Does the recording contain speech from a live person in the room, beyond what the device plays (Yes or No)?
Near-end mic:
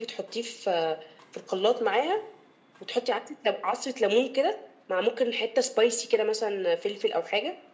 No